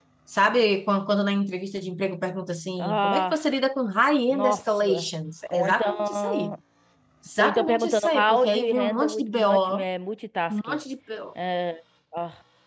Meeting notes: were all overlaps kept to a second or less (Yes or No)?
No